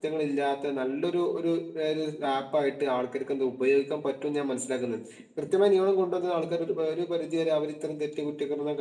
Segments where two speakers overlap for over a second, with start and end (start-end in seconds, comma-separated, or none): none